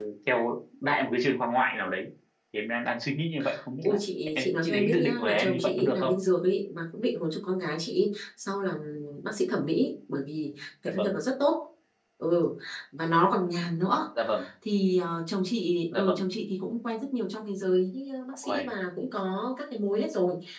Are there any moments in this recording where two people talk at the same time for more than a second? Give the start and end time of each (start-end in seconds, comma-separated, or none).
4.3-6.1